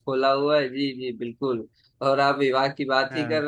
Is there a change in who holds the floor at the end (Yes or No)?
No